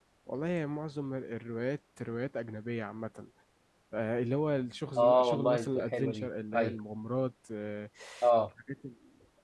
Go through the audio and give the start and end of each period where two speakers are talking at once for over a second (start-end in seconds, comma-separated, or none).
5.0-6.8